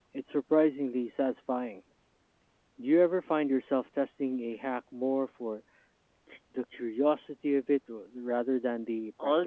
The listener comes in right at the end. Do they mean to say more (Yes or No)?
Yes